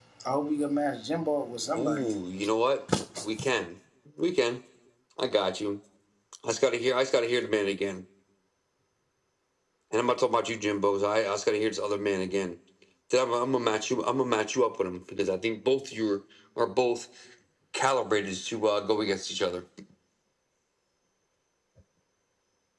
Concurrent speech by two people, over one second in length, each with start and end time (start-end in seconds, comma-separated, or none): none